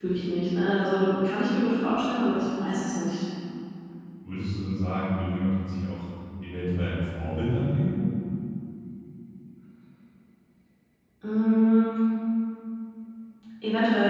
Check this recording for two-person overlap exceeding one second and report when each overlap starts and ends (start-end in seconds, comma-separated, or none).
none